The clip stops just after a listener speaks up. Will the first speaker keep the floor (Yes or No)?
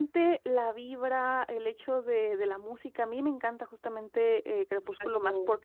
Yes